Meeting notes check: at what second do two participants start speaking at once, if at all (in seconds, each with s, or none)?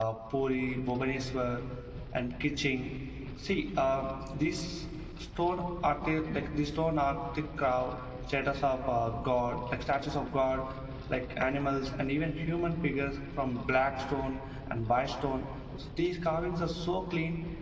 none